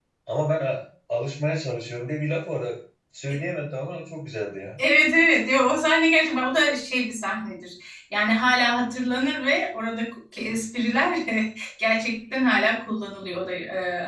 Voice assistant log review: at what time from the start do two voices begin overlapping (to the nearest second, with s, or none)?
none